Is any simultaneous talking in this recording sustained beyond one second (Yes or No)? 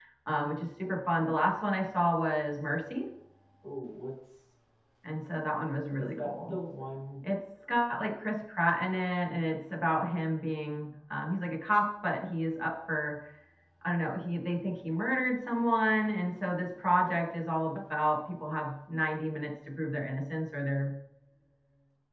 No